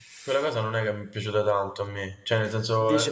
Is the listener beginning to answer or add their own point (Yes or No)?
Yes